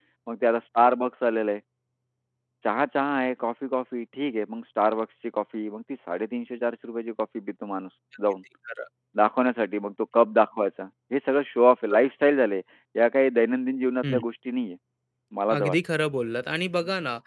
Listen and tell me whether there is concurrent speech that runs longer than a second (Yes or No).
No